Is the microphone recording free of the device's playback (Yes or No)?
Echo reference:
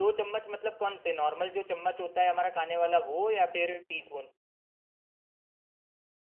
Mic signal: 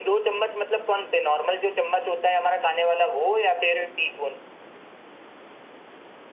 No